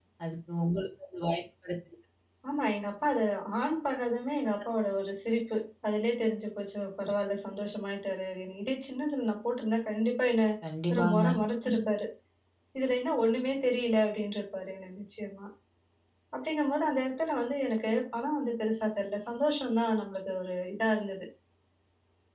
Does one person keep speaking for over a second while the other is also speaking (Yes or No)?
No